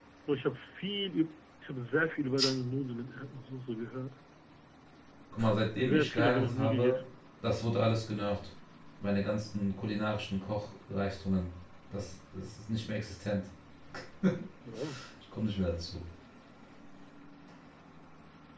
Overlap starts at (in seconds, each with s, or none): 5.8 s